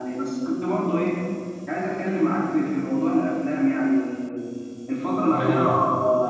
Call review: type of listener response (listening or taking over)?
listening